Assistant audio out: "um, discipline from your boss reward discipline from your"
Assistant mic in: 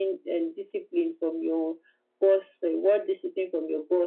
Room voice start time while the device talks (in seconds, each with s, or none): none